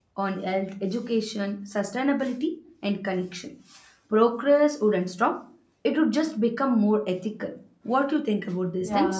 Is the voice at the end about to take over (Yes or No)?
Yes